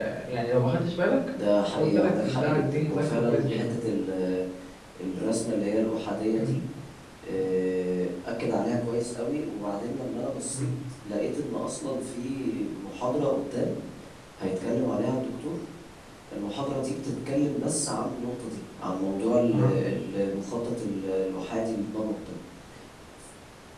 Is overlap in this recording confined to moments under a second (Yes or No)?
No